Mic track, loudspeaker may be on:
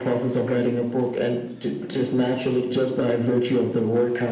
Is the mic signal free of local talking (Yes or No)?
Yes